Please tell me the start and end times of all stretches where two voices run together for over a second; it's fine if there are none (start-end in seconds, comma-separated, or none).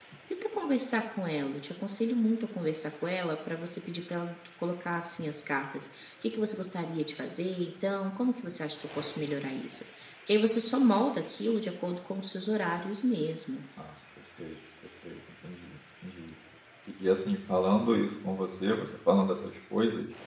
none